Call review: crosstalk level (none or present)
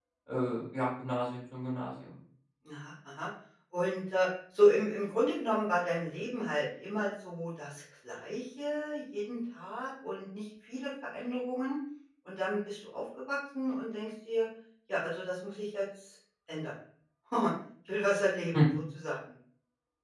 none